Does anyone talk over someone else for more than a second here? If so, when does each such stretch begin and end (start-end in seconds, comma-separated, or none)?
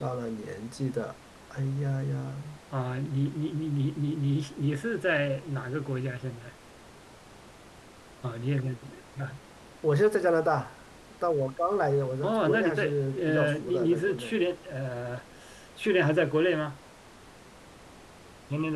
12.2-14.3